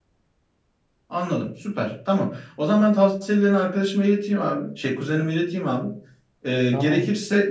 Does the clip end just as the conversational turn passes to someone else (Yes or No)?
No